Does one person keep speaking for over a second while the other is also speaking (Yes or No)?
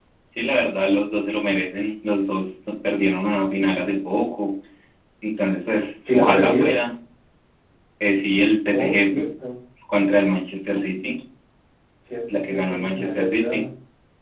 Yes